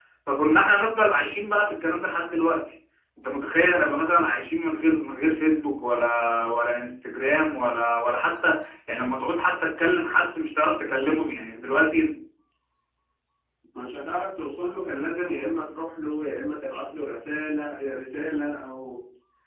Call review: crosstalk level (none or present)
none